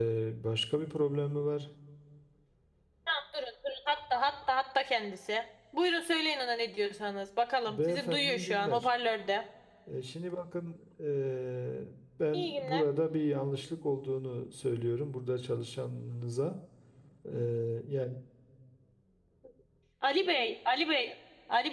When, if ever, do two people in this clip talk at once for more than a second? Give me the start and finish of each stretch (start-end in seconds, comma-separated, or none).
7.7-8.9